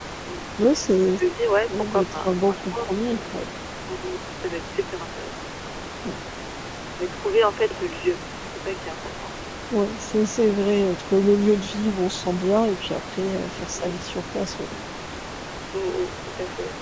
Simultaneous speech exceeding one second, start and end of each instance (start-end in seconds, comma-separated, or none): 1.9-3.1